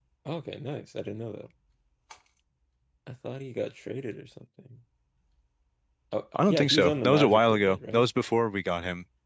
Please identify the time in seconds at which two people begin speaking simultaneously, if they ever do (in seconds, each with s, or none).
6.5 s